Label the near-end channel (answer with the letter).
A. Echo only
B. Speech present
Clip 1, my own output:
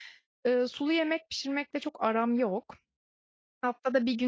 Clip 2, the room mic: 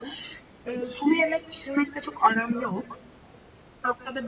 A